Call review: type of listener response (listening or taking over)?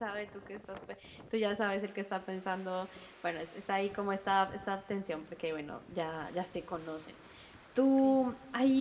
listening